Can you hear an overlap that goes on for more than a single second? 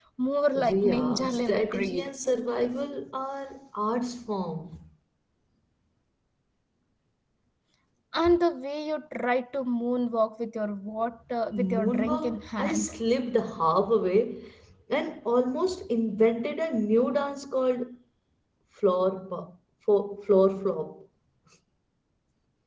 Yes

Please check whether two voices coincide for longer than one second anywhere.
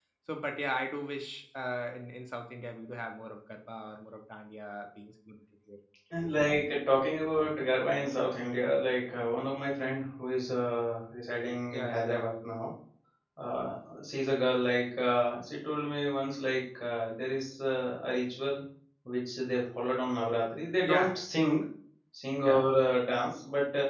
No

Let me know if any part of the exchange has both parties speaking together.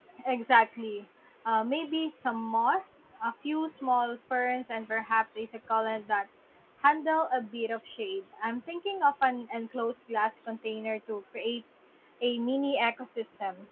No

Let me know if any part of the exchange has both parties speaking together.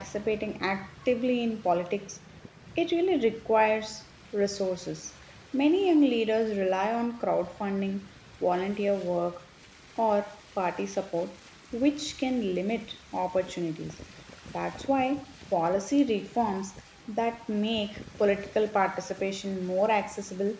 No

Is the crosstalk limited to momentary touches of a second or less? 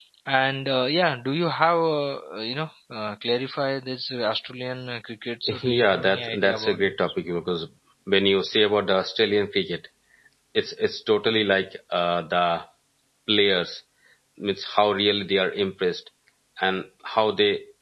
No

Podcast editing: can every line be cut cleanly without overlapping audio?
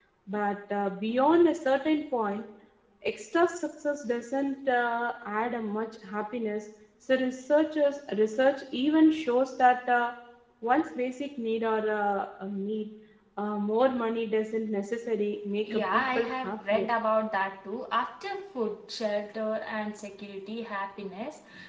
No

